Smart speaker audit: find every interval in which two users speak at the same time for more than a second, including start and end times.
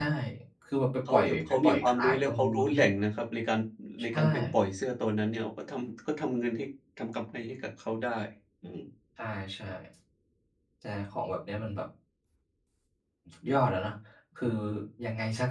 1.1-2.8

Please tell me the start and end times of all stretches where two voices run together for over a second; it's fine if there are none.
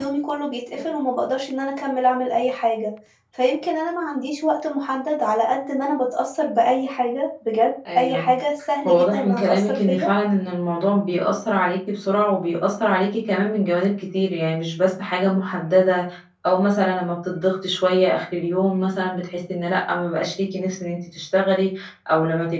8.9-10.1

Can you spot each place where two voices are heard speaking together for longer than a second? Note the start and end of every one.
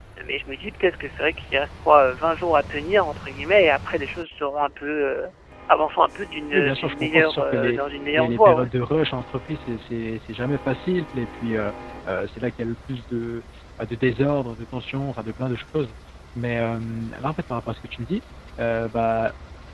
6.5-7.8

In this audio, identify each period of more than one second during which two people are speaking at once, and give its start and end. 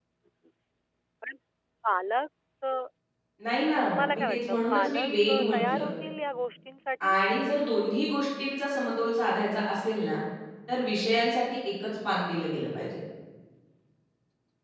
4.1-5.9

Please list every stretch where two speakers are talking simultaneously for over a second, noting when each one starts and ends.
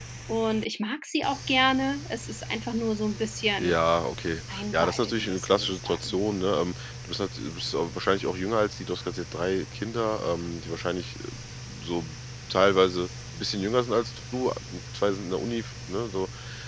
4.5-6.1

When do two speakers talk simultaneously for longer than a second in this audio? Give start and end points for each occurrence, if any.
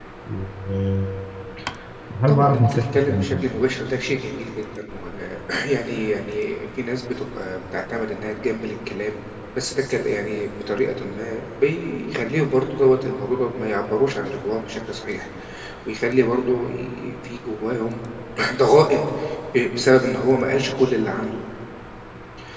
2.3-3.6

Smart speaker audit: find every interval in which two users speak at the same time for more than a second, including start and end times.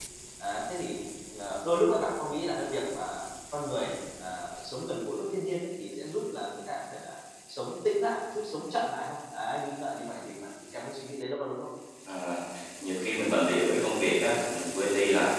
none

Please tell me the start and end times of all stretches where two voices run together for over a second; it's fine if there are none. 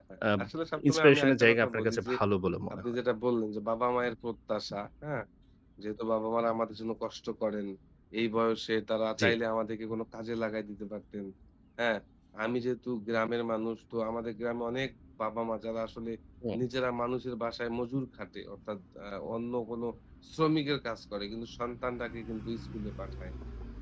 0.9-2.1

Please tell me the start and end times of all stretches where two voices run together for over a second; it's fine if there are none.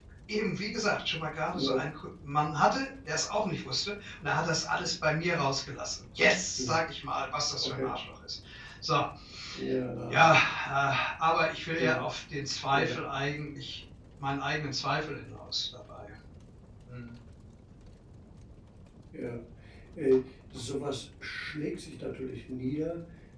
none

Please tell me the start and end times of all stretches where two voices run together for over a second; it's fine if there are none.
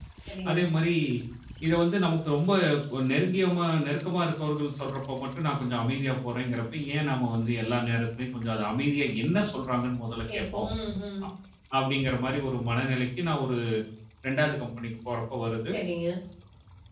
none

